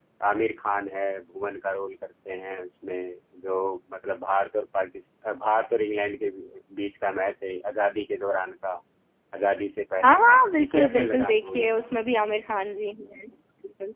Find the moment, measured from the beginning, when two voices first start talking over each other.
10.0 s

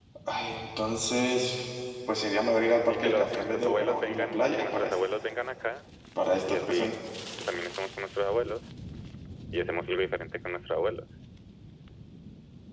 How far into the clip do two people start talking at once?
2.9 s

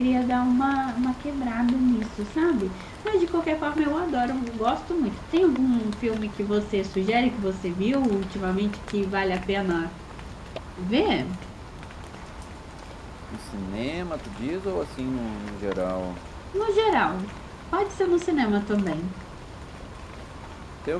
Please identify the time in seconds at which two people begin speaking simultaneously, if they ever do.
none

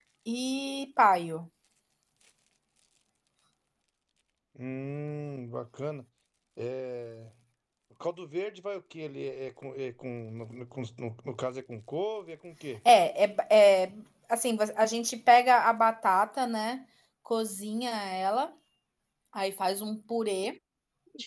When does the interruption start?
none

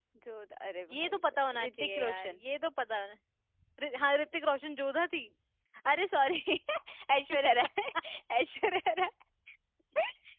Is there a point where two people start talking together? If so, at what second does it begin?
0.9 s

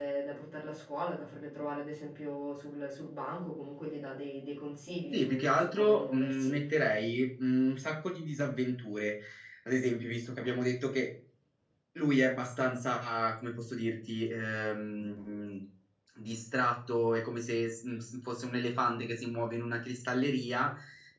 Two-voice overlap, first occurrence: 5.1 s

